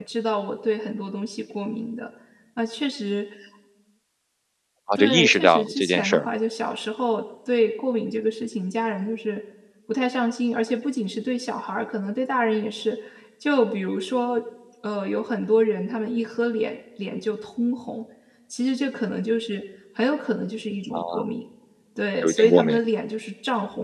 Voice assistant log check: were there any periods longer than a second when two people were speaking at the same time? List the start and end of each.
5.0-6.3

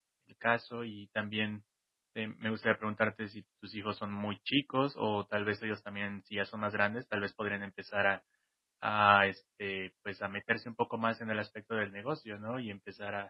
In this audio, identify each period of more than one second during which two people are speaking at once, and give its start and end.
none

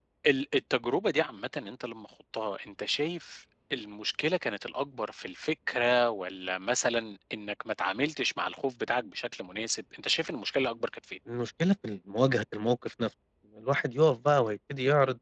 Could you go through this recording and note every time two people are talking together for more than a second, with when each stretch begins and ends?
none

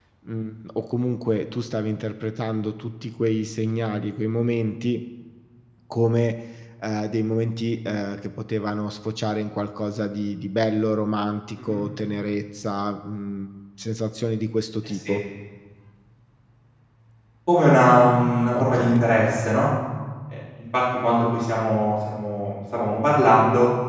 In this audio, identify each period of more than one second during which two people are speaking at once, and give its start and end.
none

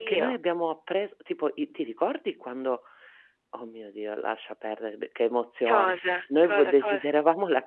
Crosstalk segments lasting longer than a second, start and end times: 5.7-7.0

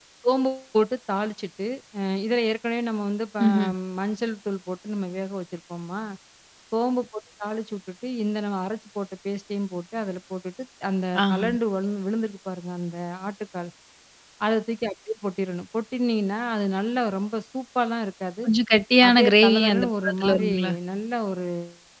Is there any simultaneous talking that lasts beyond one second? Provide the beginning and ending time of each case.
19.1-20.5

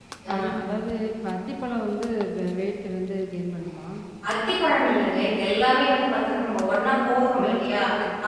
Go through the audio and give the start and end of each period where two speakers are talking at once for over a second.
none

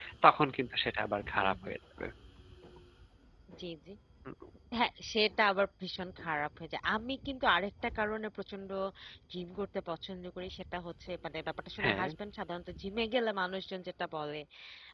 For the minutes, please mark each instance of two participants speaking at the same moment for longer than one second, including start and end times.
none

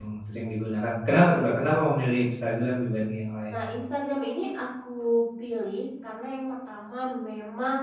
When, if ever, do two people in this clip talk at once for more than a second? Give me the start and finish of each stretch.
none

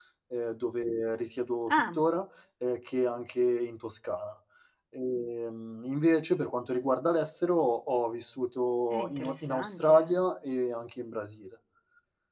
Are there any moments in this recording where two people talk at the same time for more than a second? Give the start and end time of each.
8.9-10.2

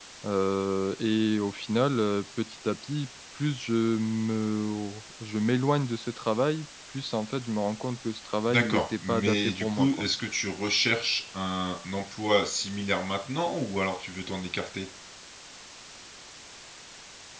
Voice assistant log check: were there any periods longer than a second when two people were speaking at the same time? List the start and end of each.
8.5-10.1

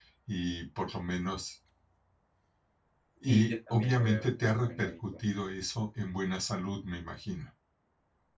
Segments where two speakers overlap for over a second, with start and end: 3.3-4.9

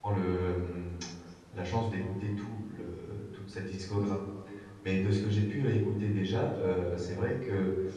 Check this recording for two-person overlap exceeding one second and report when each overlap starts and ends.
none

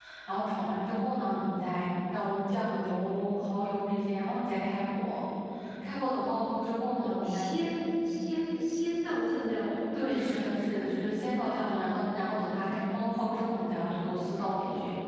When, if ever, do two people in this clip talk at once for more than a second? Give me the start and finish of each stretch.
none

